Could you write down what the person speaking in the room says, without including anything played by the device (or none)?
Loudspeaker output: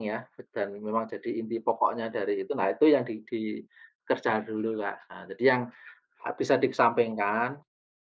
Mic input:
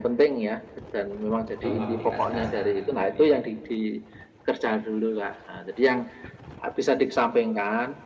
tahu aplikasi Asana itu, iya.